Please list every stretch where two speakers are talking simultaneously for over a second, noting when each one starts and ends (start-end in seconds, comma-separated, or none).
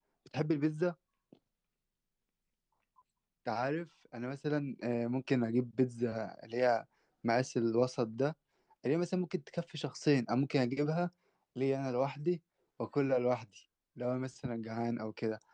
none